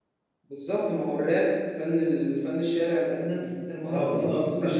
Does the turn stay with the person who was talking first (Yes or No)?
No